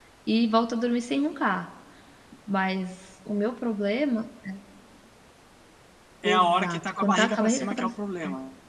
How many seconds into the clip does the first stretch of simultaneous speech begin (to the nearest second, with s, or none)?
6 s